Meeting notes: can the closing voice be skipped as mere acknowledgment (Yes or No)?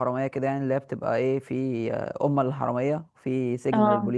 Yes